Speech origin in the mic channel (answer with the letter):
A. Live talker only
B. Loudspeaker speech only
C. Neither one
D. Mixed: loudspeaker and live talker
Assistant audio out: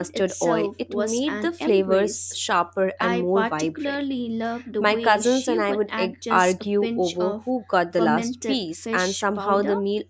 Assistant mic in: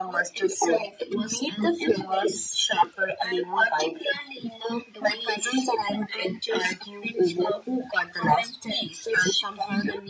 B